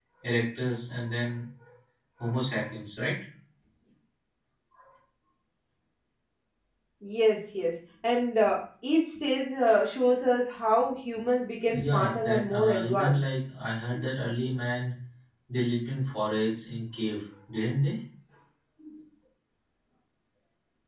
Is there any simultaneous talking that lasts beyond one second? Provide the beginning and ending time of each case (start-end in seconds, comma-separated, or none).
11.7-13.3